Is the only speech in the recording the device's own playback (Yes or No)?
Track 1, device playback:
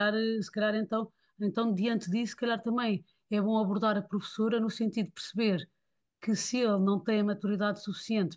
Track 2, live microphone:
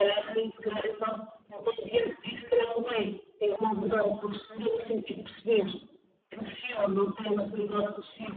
Yes